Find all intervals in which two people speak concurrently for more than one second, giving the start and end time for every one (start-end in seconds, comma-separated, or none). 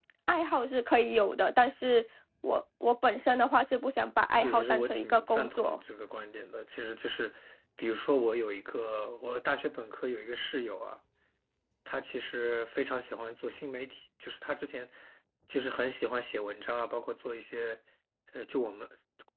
4.4-5.8